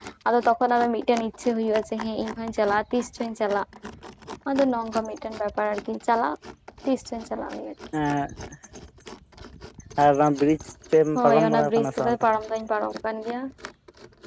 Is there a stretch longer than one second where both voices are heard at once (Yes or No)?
Yes